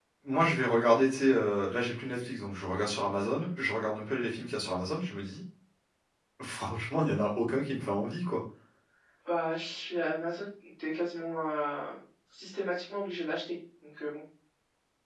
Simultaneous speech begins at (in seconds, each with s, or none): none